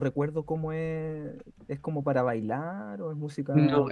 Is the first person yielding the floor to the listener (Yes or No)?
Yes